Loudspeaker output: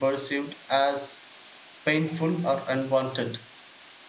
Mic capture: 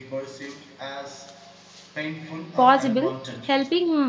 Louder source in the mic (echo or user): user